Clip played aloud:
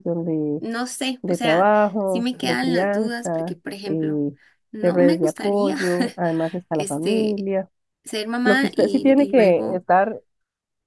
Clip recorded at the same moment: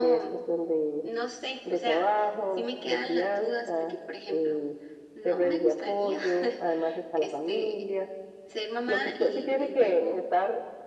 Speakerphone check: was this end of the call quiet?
Yes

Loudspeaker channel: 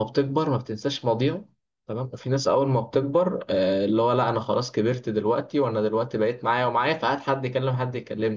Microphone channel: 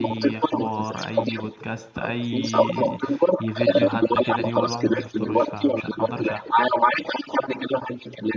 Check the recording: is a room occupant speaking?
Yes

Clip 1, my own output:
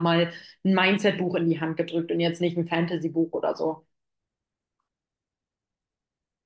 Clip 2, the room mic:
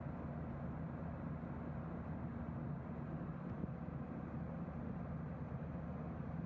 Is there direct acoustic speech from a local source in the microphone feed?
No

